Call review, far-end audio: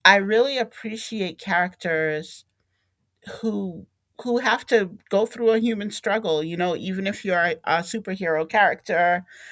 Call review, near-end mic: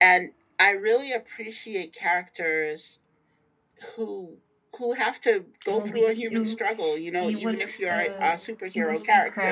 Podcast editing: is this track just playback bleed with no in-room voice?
No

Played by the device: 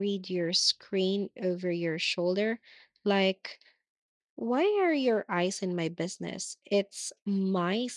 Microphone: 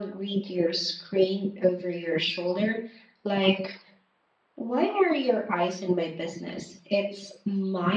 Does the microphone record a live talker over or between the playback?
No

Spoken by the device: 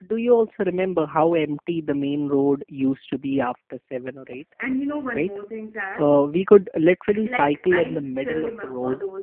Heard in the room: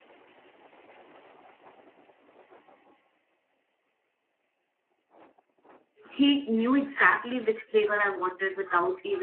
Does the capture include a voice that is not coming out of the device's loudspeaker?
Yes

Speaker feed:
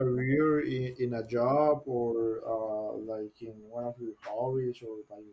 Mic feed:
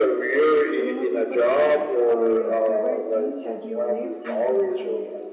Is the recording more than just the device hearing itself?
Yes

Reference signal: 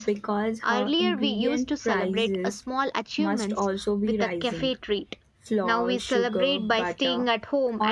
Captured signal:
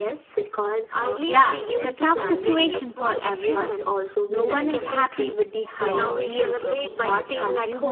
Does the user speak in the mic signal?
Yes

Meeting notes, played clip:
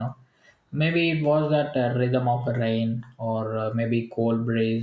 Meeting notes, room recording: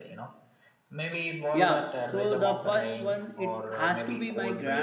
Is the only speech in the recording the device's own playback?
No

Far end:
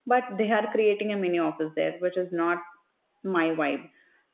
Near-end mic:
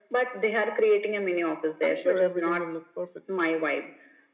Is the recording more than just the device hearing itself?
Yes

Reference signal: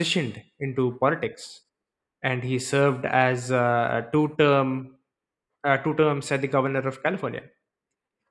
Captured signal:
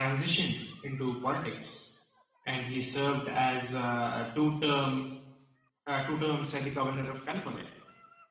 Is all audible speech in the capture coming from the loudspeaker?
Yes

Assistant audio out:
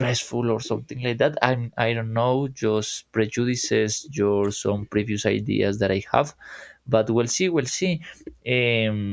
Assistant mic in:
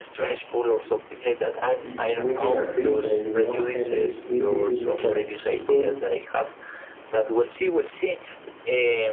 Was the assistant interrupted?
Yes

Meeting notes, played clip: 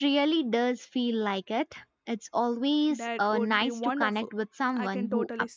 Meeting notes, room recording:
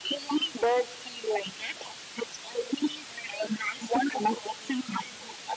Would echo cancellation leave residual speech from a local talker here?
No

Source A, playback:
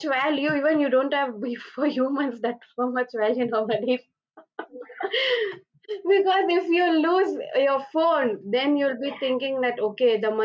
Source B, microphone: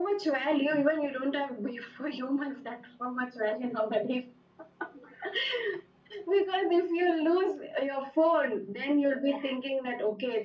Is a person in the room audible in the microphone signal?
No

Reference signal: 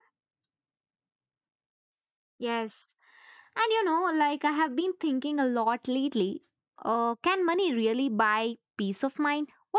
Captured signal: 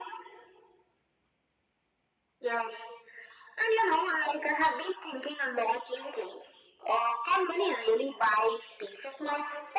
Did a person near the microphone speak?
No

